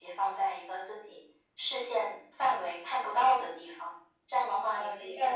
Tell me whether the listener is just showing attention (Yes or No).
No